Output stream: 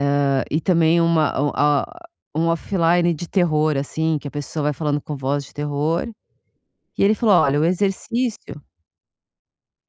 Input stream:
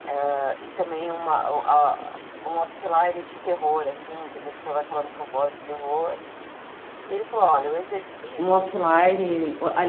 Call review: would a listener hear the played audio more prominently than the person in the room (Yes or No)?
No